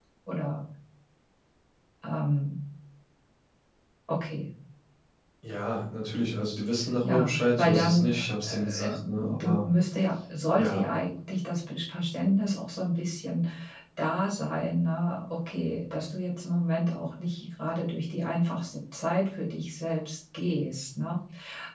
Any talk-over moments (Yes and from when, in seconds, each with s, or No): Yes, from 7.0 s